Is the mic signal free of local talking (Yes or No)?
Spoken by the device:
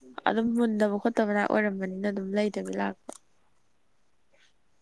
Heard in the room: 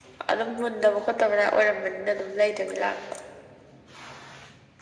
Yes